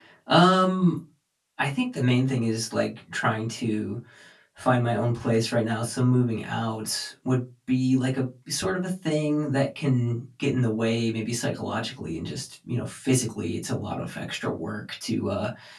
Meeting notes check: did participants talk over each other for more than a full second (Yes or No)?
No